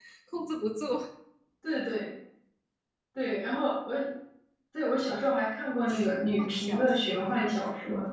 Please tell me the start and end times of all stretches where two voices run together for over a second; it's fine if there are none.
5.9-7.2

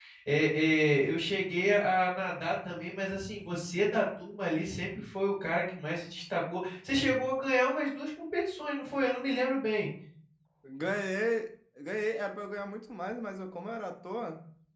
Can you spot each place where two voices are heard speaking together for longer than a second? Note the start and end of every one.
none

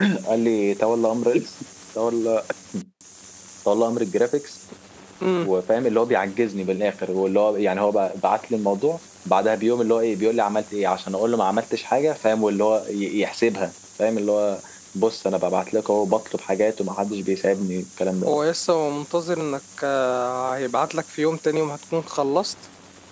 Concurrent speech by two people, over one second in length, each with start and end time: none

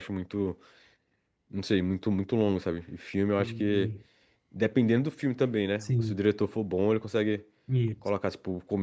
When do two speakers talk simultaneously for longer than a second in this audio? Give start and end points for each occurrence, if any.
none

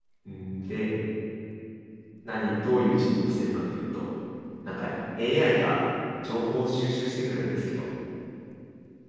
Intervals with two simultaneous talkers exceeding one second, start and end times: none

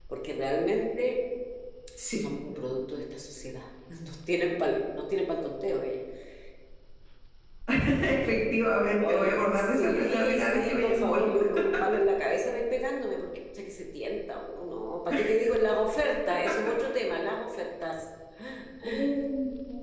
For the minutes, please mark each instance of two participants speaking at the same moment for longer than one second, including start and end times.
9.1-11.3

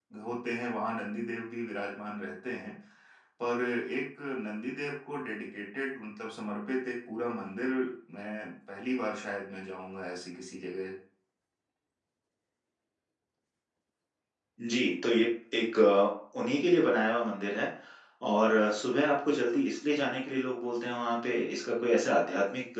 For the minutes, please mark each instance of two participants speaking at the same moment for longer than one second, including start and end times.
none

